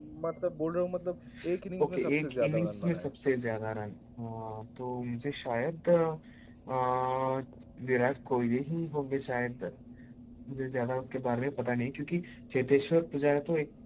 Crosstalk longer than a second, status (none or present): present